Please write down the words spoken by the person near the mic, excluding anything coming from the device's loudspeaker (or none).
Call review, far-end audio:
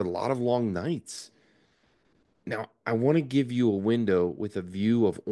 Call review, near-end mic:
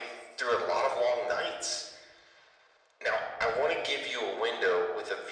none